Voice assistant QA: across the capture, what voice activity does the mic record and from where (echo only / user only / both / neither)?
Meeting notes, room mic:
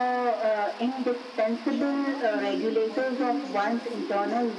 both